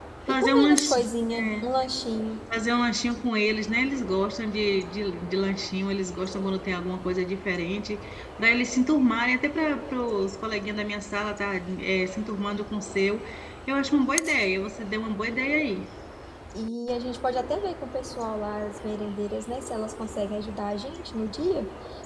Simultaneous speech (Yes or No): Yes